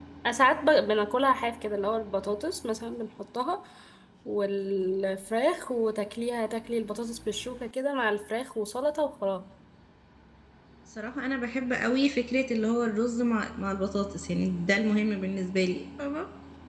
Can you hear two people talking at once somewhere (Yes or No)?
No